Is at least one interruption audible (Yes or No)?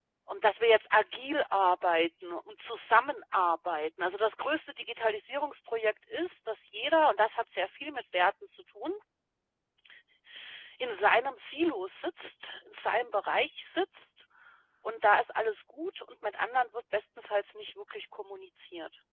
No